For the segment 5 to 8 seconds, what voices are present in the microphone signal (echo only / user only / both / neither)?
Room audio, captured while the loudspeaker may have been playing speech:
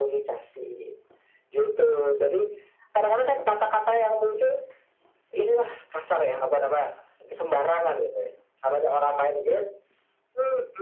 echo only